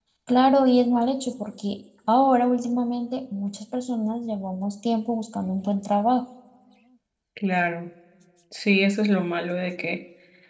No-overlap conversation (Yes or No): Yes